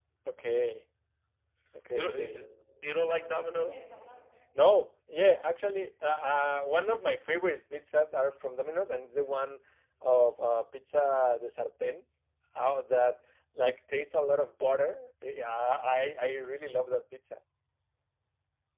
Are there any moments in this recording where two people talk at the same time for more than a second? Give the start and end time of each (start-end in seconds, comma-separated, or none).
none